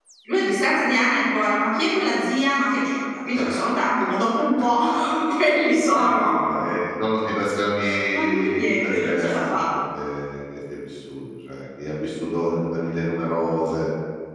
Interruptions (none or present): present